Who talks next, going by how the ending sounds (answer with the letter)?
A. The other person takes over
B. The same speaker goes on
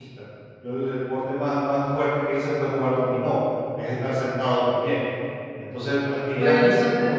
B